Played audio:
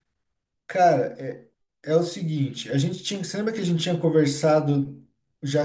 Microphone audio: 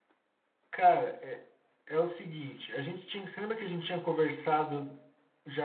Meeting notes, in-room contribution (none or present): none